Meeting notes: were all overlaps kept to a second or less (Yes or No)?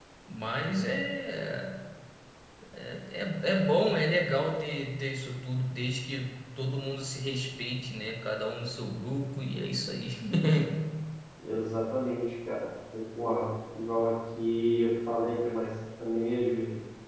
Yes